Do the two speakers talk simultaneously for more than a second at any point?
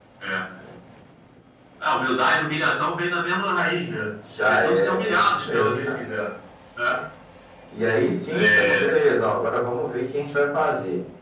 Yes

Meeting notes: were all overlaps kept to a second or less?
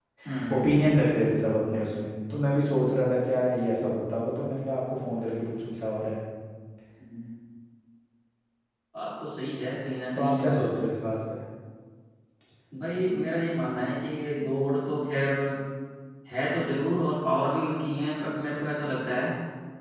Yes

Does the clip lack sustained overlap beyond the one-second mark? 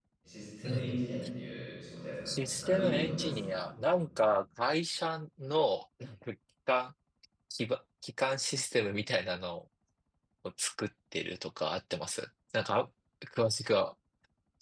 No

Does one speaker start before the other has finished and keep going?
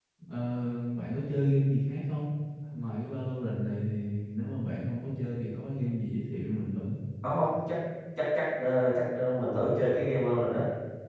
No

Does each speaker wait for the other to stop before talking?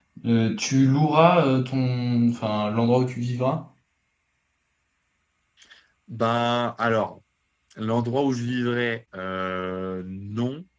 Yes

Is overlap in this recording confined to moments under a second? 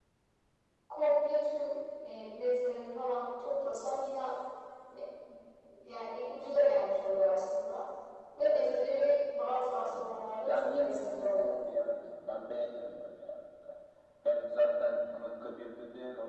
No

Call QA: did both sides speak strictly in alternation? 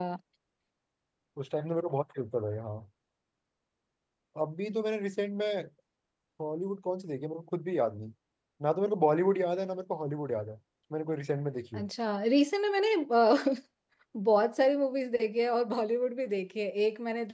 Yes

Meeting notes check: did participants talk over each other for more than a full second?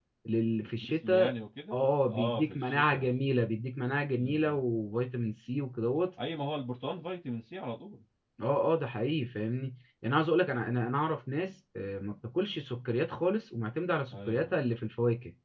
Yes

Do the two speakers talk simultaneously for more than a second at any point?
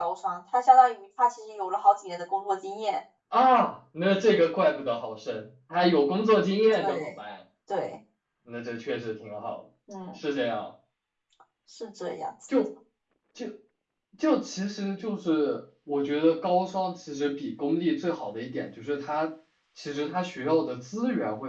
No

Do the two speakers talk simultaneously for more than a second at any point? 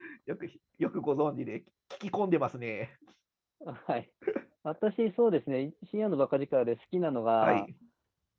No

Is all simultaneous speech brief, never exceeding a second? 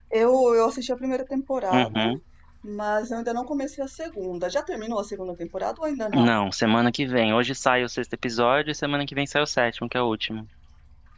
Yes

